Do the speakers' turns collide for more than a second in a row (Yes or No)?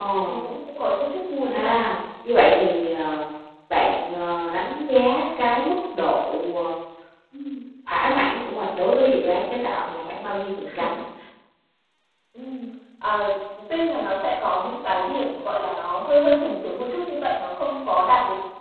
No